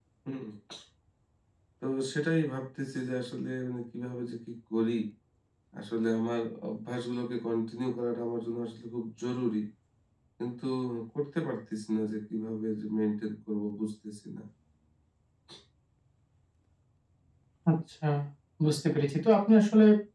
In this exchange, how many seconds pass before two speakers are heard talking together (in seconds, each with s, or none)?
none